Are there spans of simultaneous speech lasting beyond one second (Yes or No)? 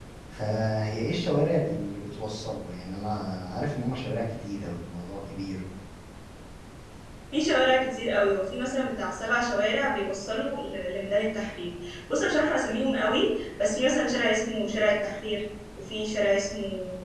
No